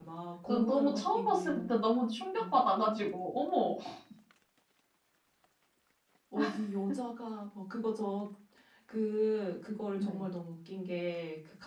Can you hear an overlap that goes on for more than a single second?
Yes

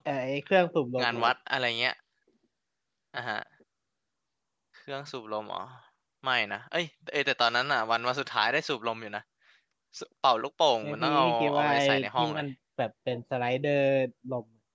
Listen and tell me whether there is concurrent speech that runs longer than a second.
Yes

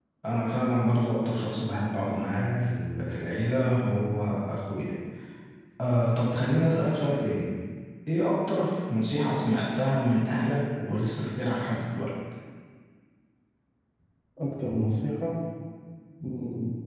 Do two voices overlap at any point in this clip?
No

